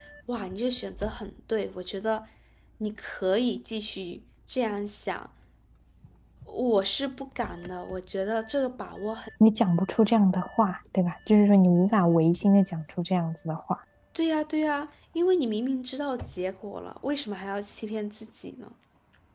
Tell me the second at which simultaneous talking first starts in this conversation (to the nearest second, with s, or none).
none